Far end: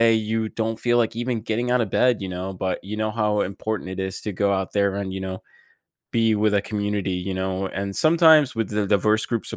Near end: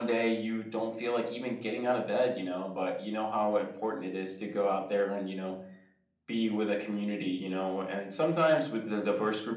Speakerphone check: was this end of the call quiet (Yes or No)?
Yes